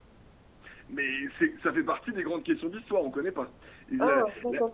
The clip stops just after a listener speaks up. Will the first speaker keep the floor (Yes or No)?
No